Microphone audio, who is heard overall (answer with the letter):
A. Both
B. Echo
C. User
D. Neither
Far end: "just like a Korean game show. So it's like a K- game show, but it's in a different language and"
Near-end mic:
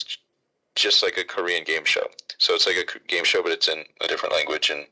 B